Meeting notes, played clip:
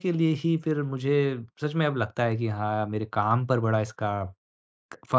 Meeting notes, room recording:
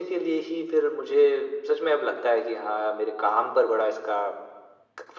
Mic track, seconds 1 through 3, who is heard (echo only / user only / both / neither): echo only